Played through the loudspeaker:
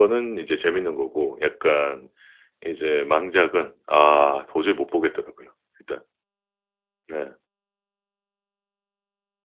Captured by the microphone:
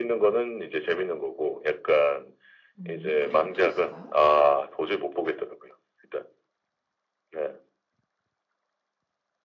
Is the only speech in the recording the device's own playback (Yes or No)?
No